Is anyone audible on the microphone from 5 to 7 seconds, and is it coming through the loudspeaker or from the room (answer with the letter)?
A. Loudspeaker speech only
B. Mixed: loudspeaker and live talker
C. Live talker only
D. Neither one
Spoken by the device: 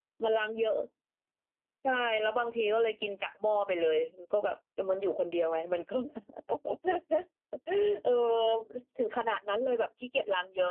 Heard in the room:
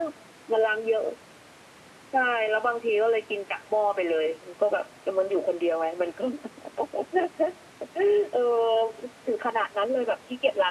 A